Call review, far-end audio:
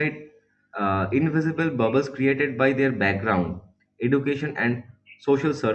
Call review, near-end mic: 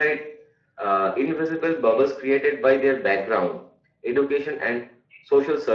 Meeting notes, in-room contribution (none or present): none